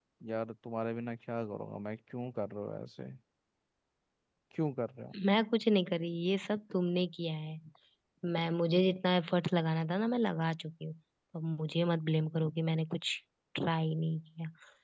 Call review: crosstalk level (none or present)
none